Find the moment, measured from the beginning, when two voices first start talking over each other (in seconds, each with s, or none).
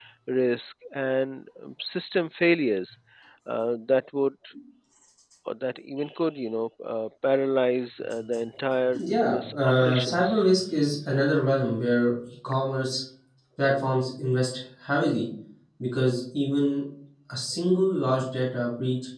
8.9 s